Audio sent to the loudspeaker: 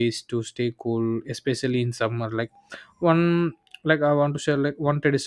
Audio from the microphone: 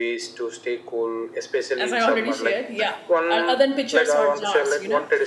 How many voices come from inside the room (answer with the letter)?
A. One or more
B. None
A